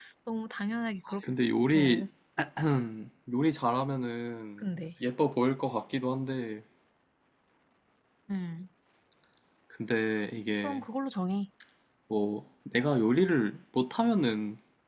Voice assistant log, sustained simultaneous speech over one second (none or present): none